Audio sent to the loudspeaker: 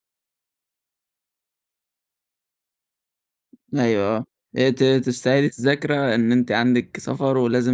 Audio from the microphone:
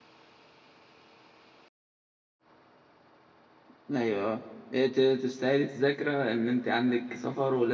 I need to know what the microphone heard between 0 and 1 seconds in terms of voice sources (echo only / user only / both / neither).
neither